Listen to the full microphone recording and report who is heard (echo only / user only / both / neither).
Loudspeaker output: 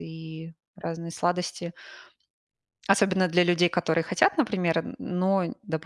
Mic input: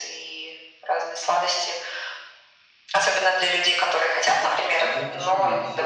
both